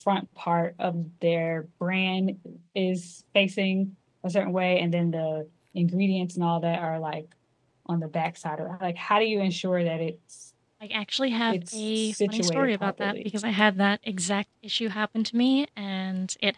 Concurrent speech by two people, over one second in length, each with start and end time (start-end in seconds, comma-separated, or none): 11.5-13.3